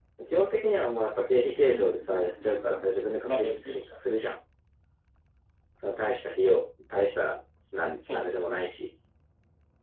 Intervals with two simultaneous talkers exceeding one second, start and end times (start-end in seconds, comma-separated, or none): 1.6-3.9